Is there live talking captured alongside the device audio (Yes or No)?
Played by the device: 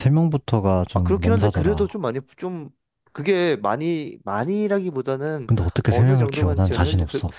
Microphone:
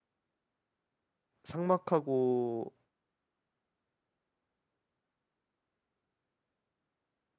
Yes